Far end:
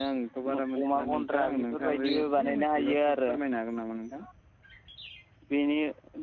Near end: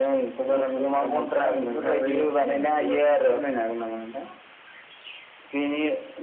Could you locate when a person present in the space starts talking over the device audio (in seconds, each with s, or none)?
none